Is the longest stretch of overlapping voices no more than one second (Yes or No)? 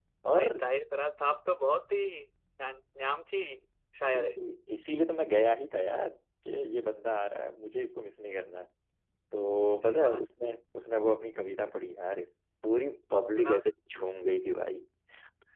Yes